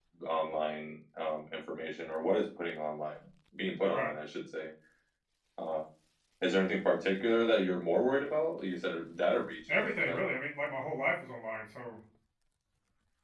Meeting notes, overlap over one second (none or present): none